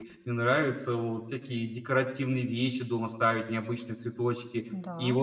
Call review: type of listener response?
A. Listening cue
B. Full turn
A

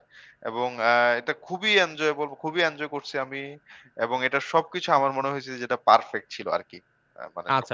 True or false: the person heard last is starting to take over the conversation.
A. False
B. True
B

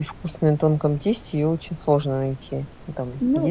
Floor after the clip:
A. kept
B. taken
B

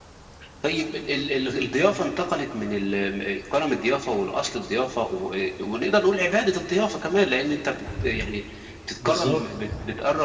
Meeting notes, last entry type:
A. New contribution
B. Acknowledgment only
B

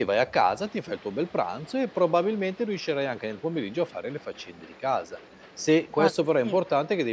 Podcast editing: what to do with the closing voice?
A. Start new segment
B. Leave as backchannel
B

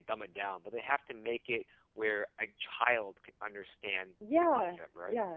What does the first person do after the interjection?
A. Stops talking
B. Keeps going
A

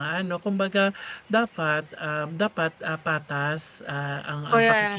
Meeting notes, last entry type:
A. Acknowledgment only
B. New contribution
A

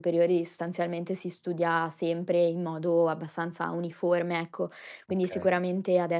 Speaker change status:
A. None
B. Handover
A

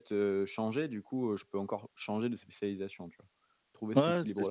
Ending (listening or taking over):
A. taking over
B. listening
A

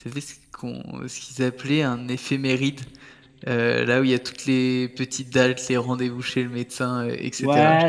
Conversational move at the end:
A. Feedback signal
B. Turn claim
B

